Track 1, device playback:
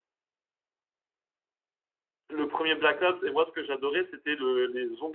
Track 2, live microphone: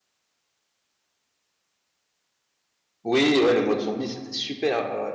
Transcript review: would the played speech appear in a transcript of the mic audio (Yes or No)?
No